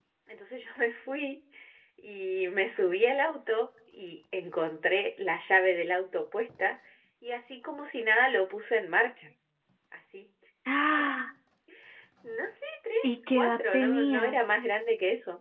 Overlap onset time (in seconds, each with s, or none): 13.0 s